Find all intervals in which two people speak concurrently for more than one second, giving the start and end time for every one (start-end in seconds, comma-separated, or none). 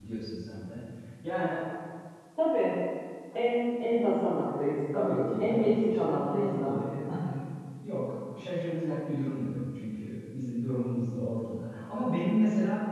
4.9-6.8